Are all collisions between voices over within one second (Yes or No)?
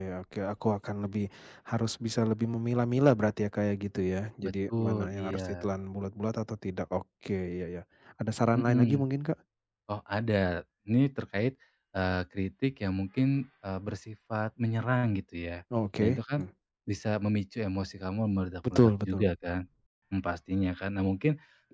No